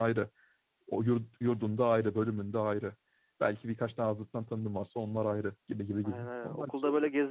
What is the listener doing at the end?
taking over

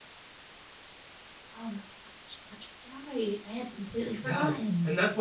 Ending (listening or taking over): taking over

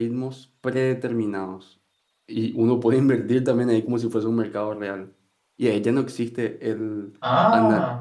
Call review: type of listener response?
listening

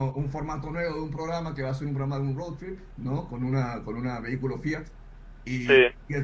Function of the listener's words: listening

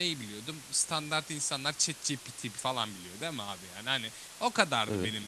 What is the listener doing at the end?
listening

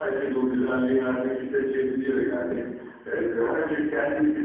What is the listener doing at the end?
listening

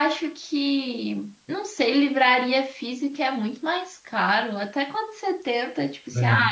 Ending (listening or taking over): listening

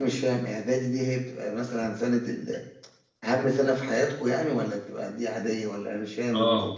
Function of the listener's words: taking over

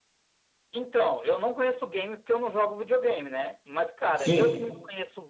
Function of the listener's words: listening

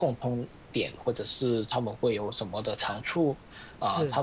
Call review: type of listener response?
listening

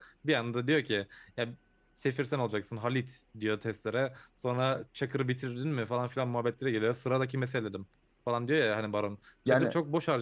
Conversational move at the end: listening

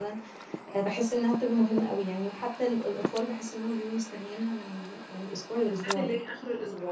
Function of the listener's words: taking over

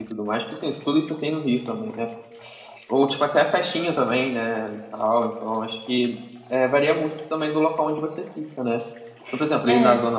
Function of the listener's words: listening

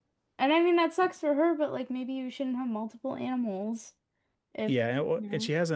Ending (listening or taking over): taking over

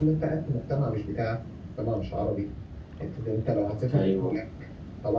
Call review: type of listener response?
listening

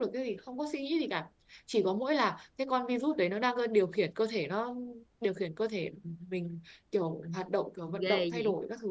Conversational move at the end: taking over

